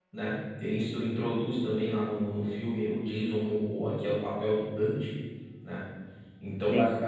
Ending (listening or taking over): listening